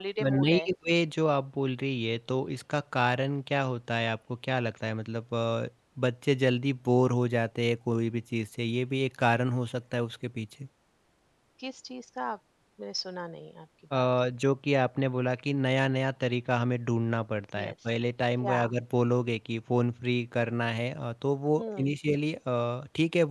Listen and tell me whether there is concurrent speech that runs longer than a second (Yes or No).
No